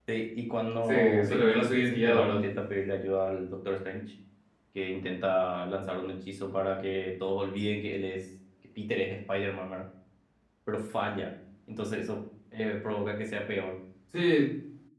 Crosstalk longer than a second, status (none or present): present